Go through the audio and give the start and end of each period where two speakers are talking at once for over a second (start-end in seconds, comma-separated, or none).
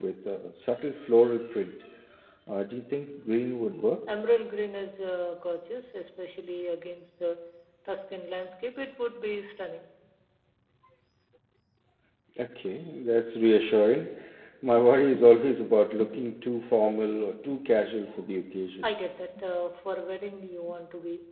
none